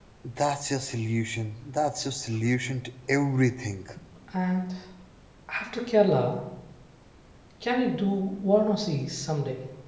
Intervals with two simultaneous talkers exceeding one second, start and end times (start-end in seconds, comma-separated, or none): none